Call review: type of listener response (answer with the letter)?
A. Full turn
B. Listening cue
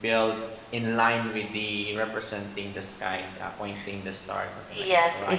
A